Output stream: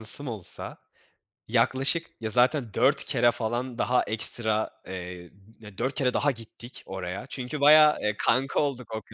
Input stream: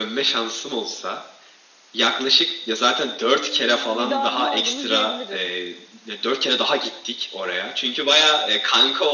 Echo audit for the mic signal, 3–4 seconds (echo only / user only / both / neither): both